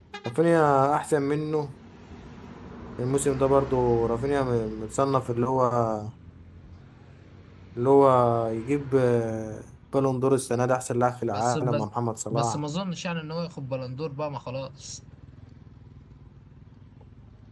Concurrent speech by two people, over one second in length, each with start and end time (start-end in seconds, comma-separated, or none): none